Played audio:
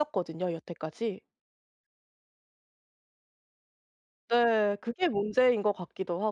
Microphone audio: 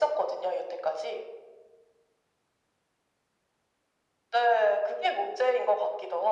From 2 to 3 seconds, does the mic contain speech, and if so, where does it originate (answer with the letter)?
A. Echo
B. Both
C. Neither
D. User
C